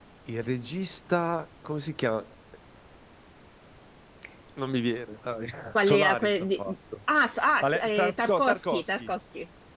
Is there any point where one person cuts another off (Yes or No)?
Yes